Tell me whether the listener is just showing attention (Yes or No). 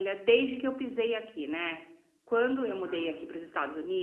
Yes